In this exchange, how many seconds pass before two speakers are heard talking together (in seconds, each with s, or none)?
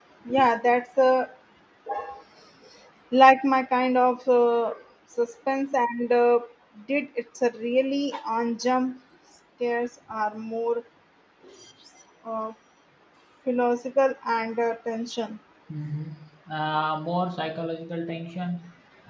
none